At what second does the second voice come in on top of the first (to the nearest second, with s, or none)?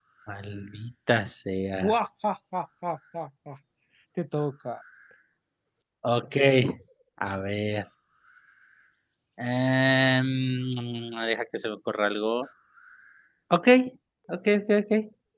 none